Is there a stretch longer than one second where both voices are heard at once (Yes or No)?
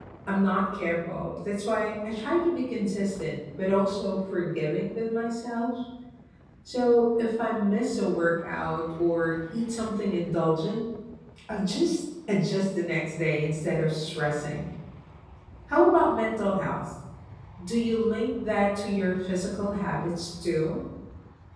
No